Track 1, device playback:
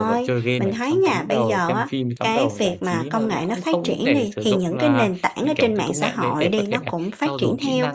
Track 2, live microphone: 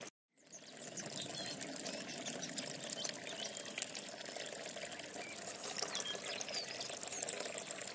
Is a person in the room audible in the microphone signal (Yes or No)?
No